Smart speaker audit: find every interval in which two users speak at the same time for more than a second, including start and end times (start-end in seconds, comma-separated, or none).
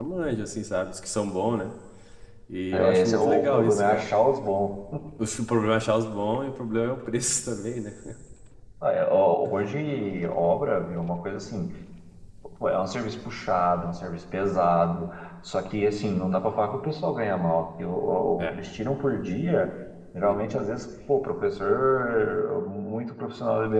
2.7-4.1